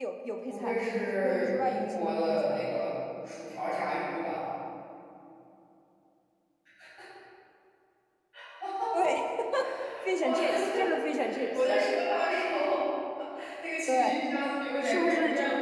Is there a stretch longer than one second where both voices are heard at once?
Yes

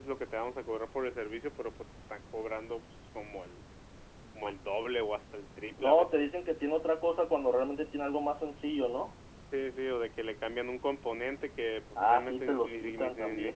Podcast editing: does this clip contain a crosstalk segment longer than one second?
Yes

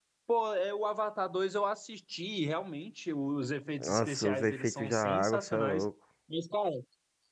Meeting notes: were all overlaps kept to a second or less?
No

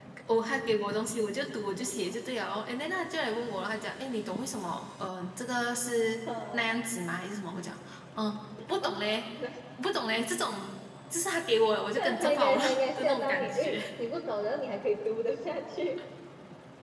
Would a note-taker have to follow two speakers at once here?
Yes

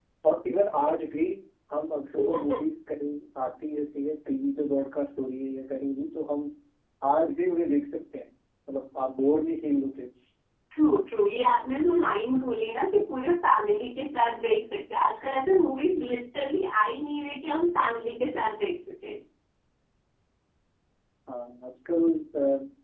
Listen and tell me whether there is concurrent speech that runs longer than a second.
No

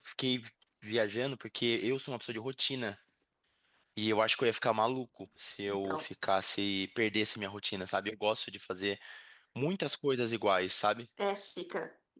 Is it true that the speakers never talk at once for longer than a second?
Yes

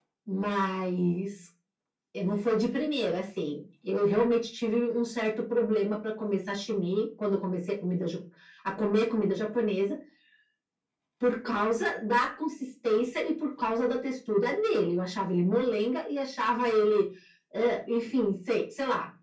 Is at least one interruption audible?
No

